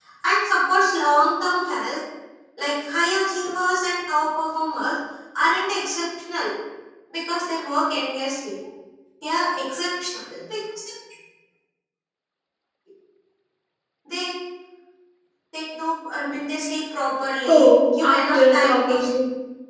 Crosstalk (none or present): present